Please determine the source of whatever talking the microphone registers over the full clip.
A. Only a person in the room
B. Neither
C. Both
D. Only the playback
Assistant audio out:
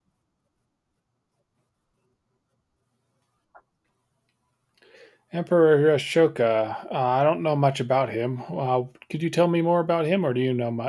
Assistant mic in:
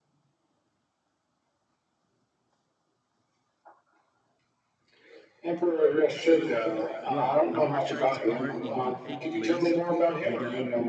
C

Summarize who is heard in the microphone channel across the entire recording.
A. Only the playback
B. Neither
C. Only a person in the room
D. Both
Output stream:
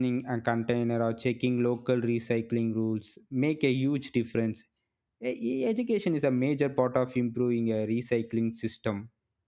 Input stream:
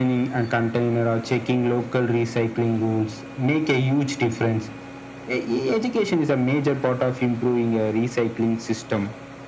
A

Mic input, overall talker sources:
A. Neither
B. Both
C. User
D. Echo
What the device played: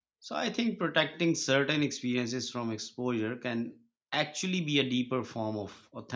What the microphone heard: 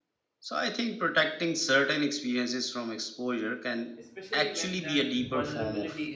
B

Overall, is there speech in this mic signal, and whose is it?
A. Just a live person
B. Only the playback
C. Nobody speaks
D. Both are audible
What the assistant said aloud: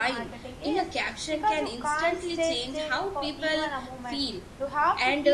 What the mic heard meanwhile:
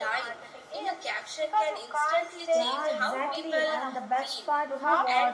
D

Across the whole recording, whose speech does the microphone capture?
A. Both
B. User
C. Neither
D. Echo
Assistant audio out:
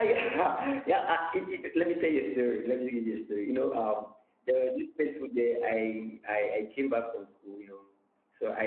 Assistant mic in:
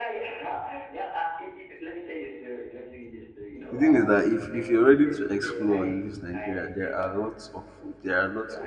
A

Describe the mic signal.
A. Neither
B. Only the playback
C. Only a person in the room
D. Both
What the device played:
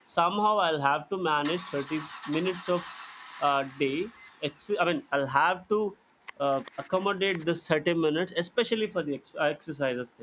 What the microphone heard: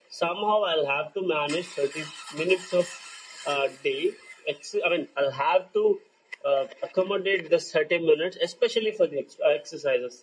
B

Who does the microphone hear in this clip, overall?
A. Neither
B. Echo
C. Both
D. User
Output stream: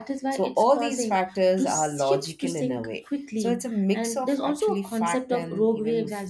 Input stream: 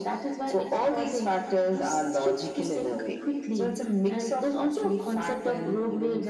B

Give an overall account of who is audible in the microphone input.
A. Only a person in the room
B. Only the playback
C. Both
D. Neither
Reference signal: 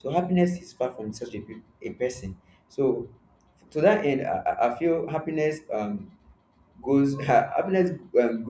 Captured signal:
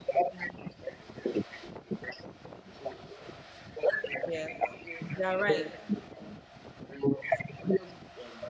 C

